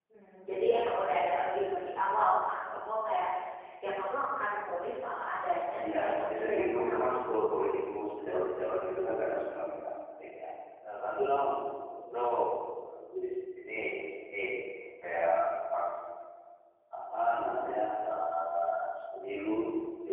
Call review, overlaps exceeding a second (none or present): present